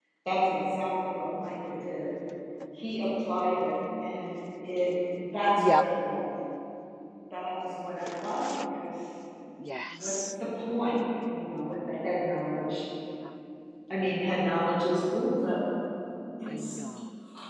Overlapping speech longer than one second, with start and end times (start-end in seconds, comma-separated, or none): none